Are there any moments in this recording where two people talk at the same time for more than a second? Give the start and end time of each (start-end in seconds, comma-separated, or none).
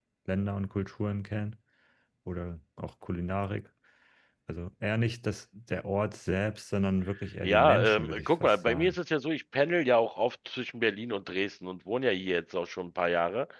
7.4-9.0